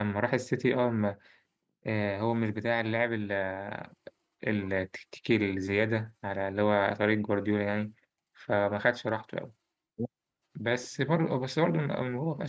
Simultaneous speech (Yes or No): No